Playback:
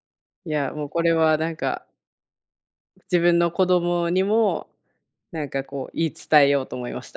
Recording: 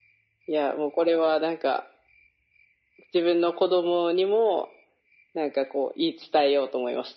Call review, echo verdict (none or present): present